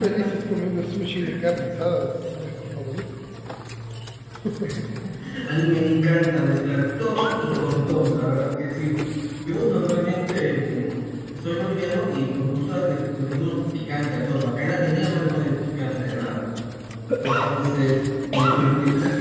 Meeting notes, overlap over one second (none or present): none